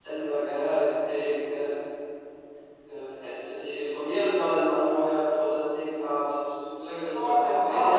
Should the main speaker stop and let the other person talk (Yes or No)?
Yes